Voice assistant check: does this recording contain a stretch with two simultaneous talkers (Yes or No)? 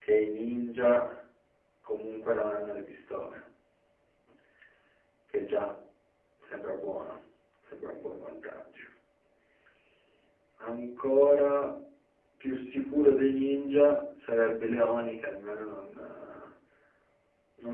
No